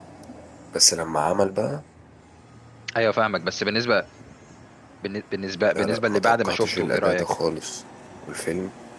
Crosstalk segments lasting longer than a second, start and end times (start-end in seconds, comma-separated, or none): 5.8-7.2